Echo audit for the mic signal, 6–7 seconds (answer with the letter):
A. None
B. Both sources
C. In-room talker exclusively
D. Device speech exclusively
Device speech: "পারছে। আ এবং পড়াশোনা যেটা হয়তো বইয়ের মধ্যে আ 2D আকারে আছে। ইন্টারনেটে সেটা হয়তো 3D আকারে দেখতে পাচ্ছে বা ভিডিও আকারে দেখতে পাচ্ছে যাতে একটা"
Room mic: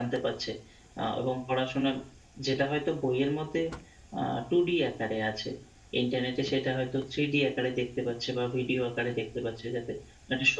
D